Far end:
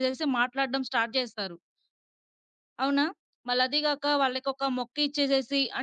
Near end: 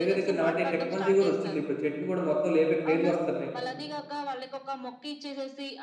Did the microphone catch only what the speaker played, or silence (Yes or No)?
No